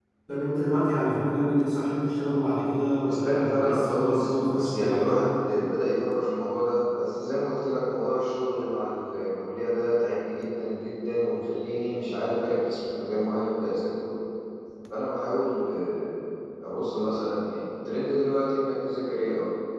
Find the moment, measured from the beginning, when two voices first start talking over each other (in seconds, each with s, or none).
3.0 s